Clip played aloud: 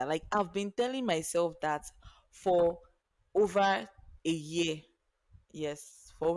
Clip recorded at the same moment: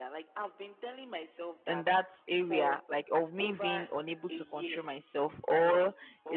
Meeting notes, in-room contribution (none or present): present